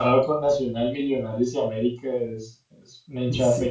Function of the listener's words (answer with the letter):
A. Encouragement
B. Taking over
B